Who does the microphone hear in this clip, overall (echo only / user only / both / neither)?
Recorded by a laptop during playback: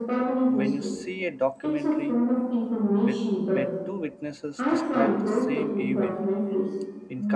both